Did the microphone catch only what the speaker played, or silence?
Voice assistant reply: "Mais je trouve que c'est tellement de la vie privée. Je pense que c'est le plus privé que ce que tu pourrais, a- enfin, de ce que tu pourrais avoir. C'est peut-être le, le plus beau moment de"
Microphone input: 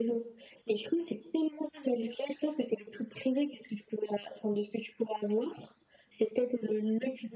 Yes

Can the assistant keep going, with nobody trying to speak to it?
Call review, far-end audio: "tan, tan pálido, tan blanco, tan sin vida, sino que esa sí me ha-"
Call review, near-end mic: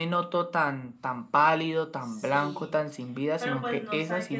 No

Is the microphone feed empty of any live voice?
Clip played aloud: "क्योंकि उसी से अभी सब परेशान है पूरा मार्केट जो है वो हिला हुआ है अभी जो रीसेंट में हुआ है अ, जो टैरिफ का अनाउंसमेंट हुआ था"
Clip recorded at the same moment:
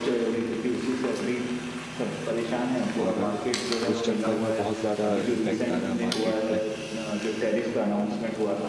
No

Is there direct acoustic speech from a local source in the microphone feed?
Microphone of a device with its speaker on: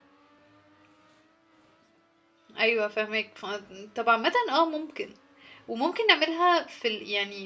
Yes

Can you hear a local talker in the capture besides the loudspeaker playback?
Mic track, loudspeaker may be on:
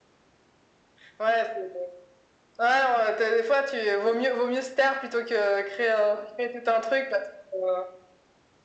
No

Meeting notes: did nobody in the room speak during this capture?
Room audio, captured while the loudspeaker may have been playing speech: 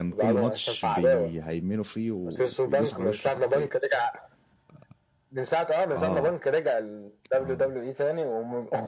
No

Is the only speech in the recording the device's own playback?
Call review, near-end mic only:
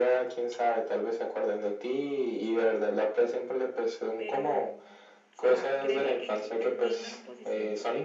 No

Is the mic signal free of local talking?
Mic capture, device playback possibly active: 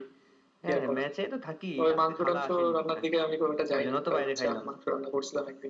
Yes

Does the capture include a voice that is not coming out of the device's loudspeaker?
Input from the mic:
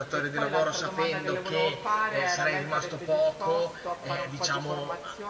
Yes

